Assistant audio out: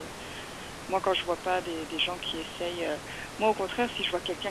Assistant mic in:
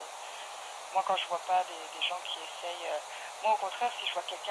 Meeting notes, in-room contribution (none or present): none